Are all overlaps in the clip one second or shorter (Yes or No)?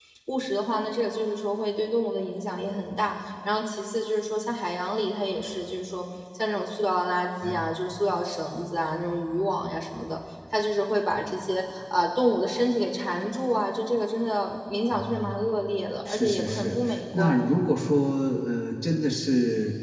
No